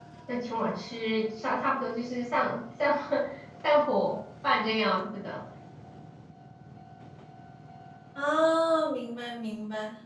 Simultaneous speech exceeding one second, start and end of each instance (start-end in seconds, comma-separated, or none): none